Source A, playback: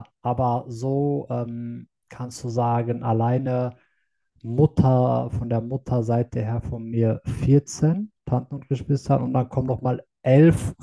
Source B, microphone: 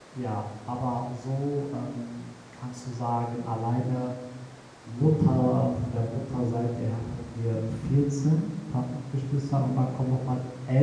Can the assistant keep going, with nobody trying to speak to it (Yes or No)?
Yes